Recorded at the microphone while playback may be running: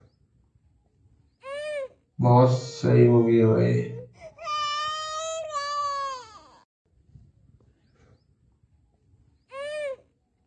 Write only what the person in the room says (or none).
बहुत सही मूवी है भाई